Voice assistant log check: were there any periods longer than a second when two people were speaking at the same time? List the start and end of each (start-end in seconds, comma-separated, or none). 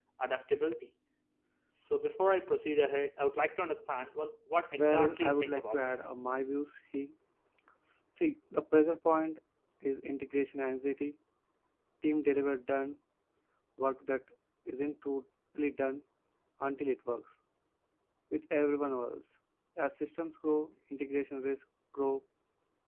4.7-6.2